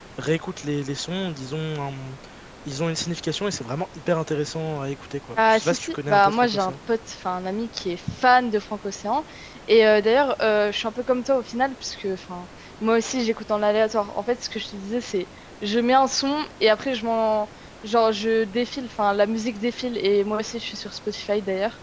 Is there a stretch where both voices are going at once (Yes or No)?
Yes